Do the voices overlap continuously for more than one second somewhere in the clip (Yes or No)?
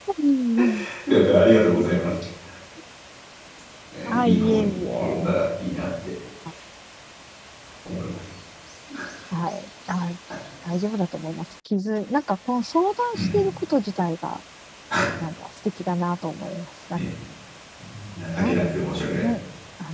Yes